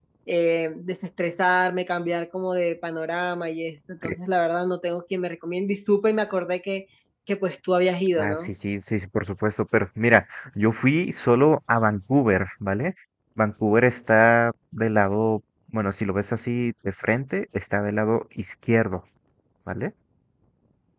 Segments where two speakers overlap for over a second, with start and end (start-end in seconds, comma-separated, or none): none